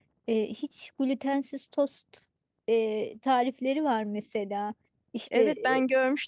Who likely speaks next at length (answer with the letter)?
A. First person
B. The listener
B